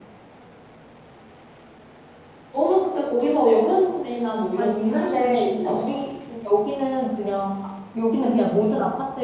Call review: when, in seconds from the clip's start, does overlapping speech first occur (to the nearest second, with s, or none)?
5 s